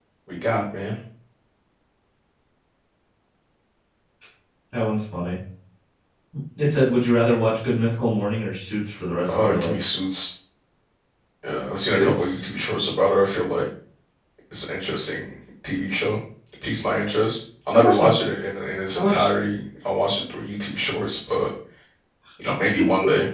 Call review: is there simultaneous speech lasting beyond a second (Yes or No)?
No